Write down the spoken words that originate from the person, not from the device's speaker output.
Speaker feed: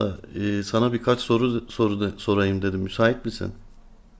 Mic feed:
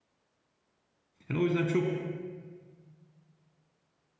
Yani o yüzden çok

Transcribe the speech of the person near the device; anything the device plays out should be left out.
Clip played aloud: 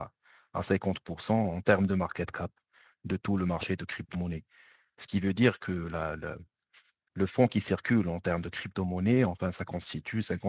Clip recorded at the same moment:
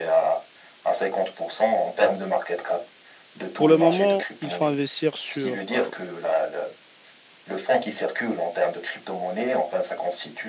pour le moment, il faut investir sur euh,

